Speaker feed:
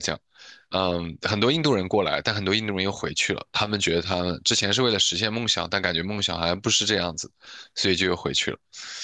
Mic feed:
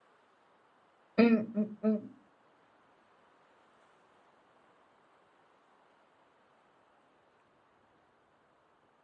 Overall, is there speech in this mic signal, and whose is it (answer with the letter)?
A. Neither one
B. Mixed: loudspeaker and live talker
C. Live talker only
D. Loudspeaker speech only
C